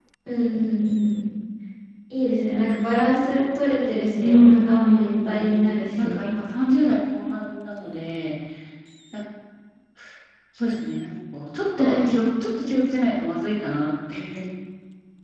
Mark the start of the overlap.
4.2 s

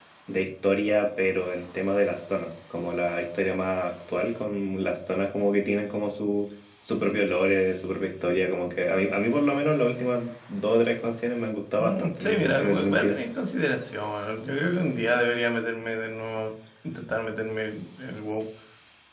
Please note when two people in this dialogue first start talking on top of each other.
11.8 s

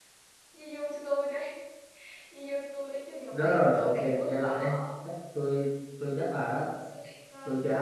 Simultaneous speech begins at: 3.3 s

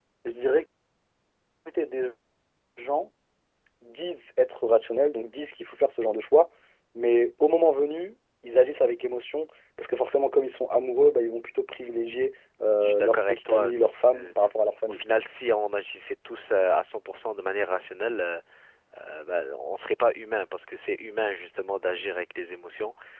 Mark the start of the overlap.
12.8 s

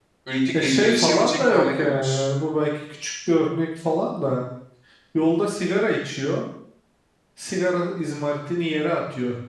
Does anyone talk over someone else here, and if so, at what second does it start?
0.5 s

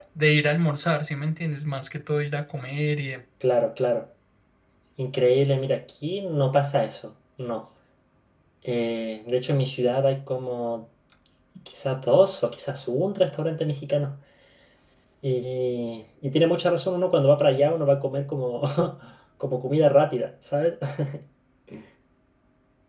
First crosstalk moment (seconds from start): none

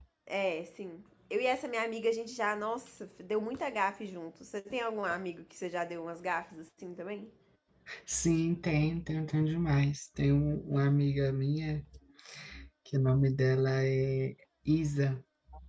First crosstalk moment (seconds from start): none

